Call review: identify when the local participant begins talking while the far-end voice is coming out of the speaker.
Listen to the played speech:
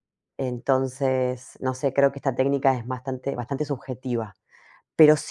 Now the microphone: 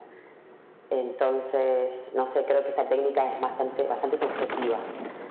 none

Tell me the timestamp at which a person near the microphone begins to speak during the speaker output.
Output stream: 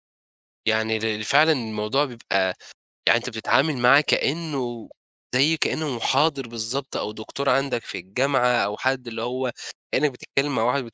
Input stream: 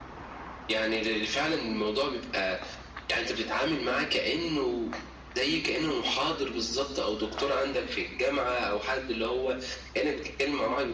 none

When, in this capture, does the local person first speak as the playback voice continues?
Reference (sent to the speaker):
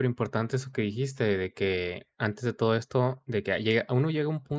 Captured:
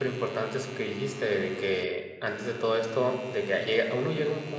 none

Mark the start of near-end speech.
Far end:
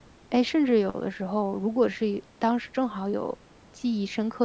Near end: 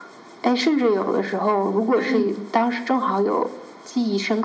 2.0 s

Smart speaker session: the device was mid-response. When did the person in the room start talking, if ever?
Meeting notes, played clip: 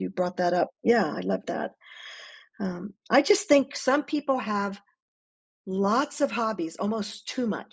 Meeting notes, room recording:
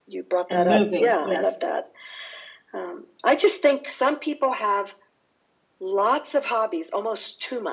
0.5 s

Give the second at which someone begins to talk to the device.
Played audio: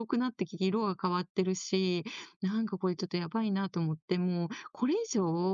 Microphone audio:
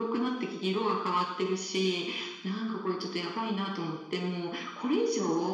none

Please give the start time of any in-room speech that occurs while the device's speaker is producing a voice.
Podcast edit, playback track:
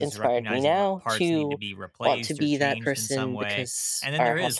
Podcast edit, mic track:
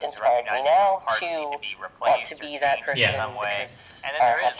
2.9 s

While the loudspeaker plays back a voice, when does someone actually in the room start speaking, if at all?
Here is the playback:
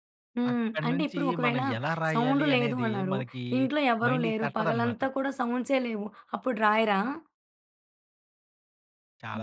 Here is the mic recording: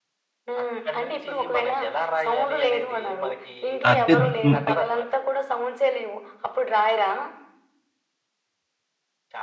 3.9 s

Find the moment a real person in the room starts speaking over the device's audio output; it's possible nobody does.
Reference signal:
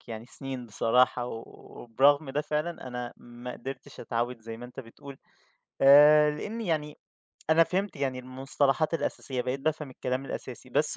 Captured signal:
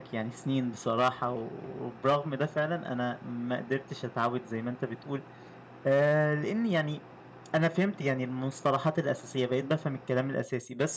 none

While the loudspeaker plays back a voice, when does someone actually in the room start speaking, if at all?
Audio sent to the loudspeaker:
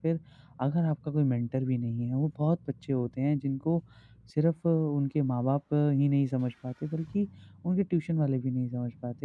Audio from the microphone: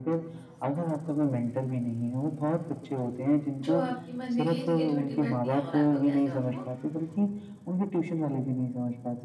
3.7 s

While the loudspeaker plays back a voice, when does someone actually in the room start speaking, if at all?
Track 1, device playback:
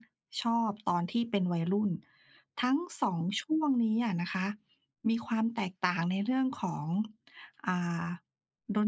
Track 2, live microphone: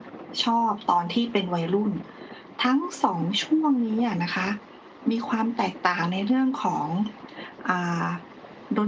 none

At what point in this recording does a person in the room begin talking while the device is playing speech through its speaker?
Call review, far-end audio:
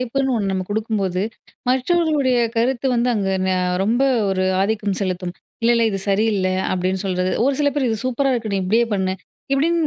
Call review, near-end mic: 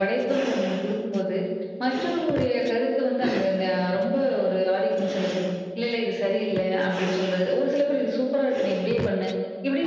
none

